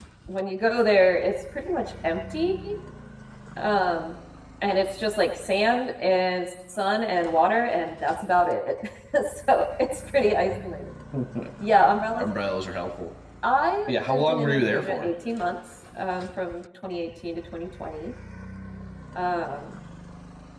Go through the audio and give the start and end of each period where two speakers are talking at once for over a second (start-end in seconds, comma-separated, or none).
13.9-15.1